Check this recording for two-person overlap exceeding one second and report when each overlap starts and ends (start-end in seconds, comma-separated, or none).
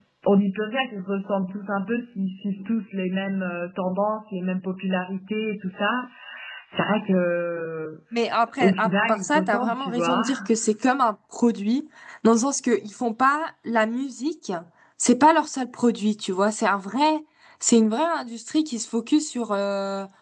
8.6-10.3